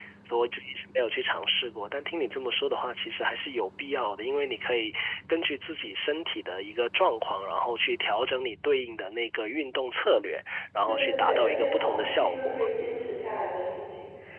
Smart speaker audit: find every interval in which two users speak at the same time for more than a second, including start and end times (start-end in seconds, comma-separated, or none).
10.9-12.6